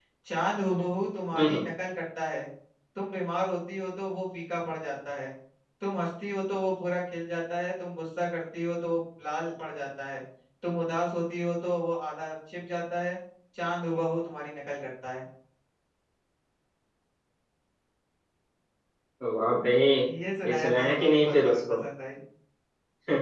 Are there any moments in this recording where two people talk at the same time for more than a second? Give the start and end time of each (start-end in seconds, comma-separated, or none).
20.4-21.8